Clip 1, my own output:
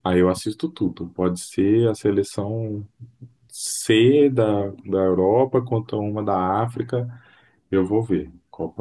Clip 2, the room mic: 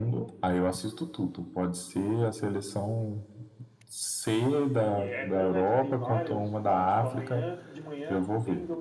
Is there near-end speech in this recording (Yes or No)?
Yes